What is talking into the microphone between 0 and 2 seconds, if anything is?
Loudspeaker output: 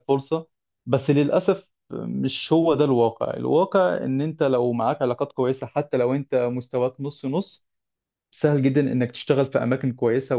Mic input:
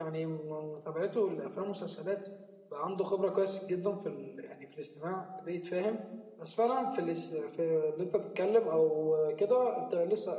user only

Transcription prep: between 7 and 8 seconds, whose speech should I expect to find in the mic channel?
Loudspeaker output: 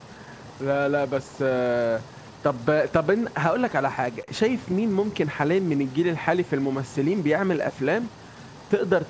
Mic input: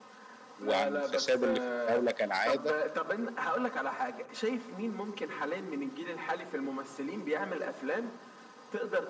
echo only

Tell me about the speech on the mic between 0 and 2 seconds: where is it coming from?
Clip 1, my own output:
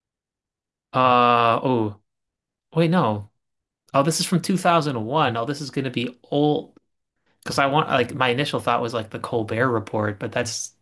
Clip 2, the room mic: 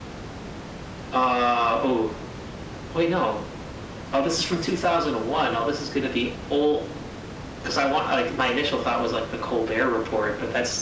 echo only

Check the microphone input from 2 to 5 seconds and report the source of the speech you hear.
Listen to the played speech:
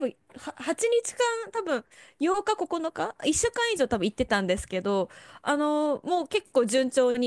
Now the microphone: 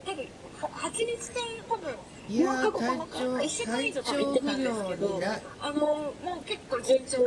both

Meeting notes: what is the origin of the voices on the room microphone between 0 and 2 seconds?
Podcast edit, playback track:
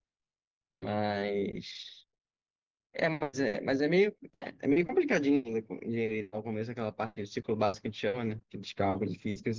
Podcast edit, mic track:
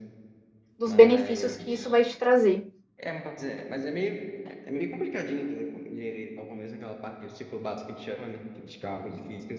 both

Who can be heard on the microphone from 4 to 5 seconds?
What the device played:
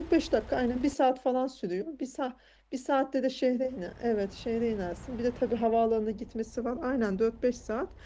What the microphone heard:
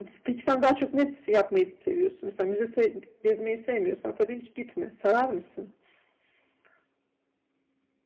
user only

